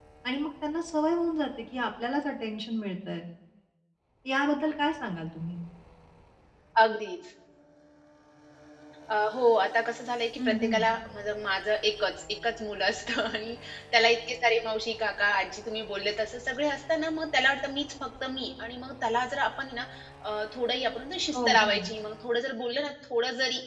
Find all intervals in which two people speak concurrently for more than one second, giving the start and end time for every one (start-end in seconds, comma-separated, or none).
none